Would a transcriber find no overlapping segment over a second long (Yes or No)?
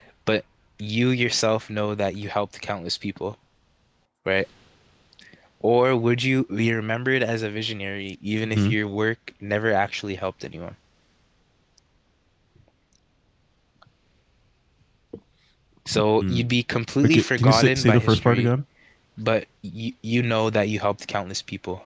No